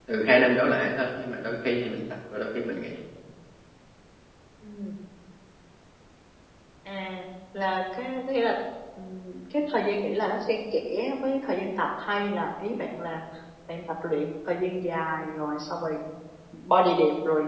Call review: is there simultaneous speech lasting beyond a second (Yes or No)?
No